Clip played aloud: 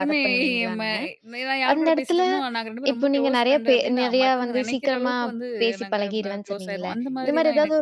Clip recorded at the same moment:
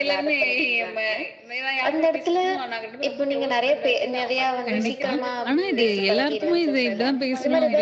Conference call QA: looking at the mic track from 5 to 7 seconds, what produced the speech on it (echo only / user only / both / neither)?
both